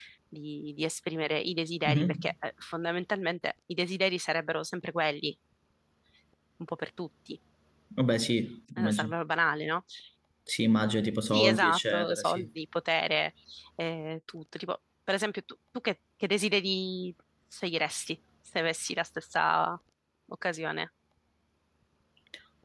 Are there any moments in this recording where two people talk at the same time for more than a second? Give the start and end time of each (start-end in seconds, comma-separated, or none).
11.3-12.5